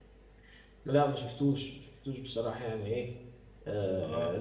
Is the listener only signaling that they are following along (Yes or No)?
Yes